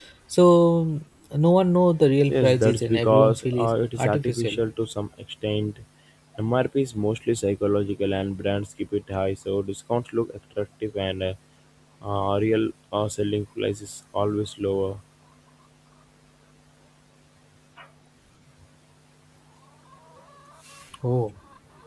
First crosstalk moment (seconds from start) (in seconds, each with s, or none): 2.3 s